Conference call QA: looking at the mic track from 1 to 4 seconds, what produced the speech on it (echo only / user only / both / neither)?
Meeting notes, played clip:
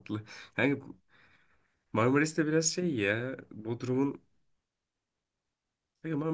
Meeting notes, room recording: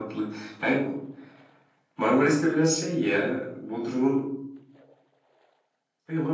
echo only